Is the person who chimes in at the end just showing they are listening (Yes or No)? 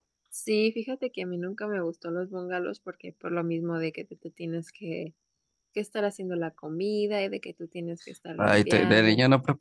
No